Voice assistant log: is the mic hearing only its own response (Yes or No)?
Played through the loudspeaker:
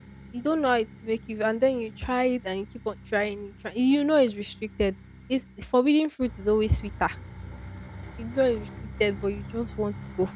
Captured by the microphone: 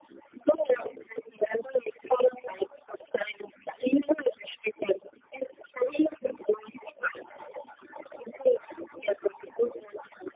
Yes